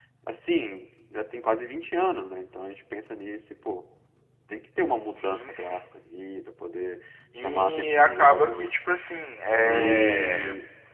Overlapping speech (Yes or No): Yes